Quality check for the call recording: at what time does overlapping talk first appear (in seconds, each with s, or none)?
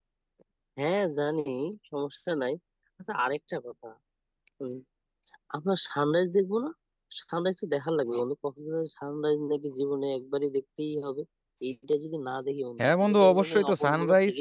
12.8 s